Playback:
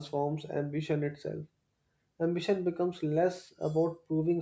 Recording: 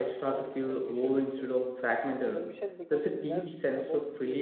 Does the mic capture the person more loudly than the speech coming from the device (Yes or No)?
Yes